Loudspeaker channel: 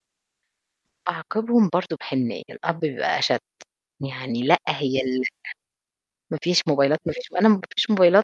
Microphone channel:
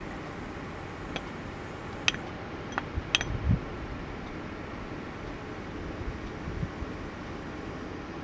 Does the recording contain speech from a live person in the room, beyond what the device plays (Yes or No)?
No